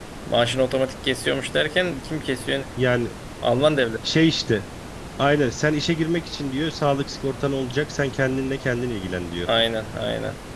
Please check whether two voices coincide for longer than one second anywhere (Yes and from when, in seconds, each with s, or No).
No